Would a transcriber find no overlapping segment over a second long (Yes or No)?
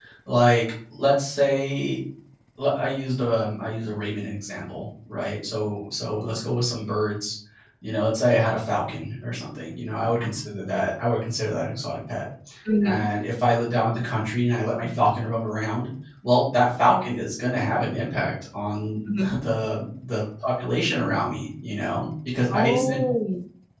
Yes